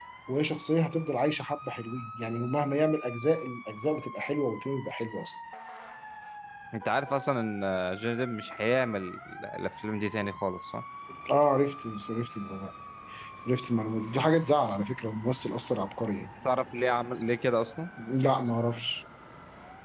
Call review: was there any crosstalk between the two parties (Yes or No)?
No